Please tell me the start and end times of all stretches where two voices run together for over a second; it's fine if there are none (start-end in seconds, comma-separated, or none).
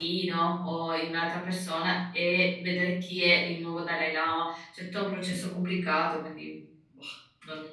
none